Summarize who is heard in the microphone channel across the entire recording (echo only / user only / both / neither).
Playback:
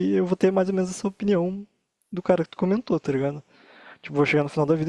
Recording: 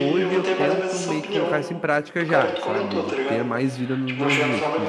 both